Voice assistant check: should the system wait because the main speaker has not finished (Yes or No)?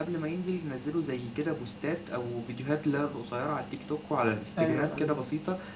Yes